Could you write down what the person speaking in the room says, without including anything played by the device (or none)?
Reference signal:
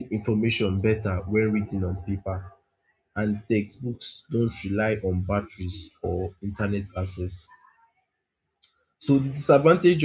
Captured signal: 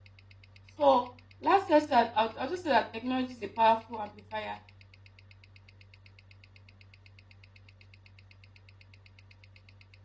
So last year, I'll, I'll just say that technology is a powerful amplifier.